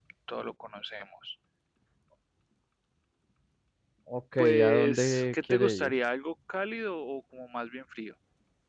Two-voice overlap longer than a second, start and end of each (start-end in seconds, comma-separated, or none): 4.4-5.9